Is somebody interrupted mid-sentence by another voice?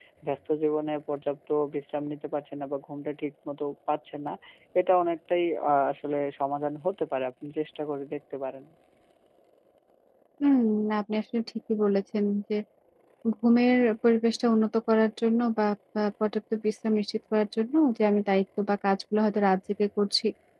No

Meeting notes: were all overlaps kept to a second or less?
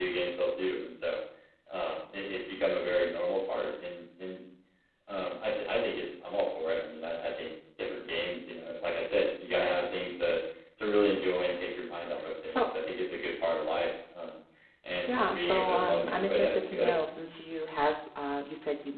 No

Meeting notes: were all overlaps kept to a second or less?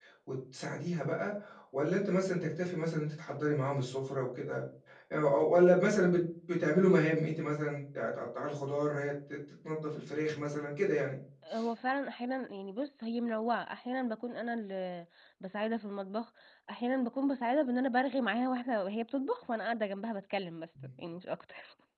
Yes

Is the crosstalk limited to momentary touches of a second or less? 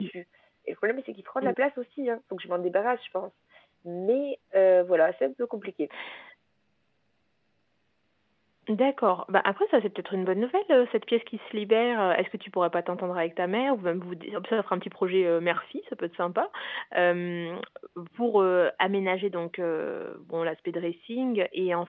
Yes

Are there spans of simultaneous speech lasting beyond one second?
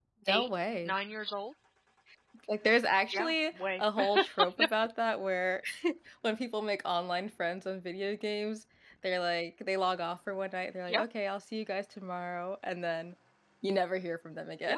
Yes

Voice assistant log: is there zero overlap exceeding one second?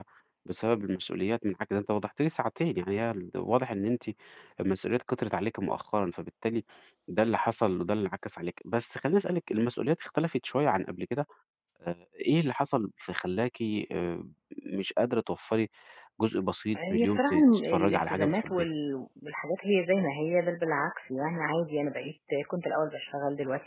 No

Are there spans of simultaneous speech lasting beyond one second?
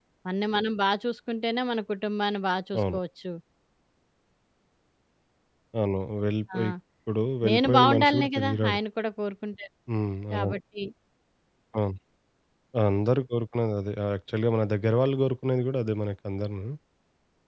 Yes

